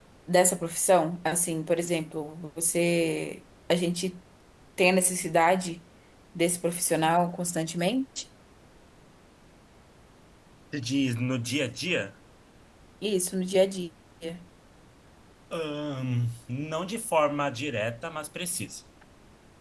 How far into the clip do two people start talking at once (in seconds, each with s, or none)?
none